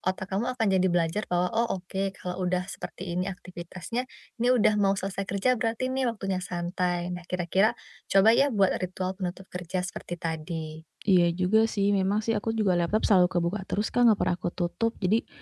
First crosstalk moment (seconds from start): none

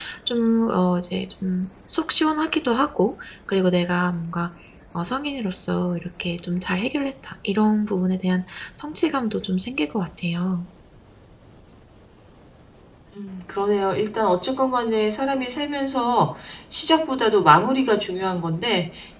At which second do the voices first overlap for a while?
none

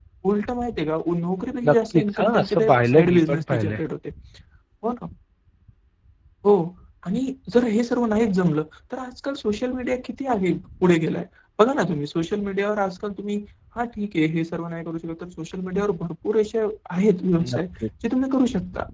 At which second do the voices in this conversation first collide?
2 s

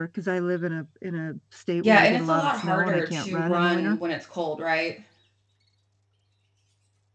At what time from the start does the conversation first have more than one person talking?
2 s

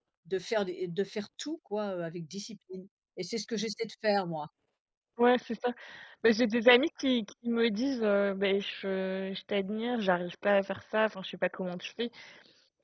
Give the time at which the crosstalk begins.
none

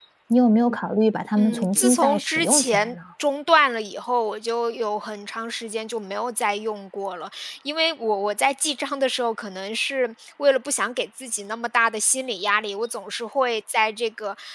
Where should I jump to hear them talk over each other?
1 s

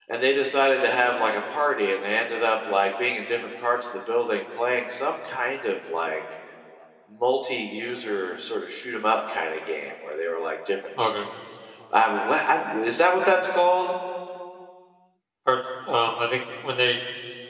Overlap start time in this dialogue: none

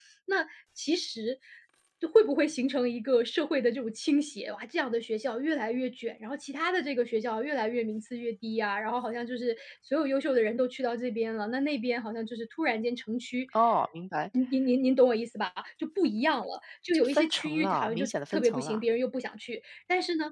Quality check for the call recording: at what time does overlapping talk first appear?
17 s

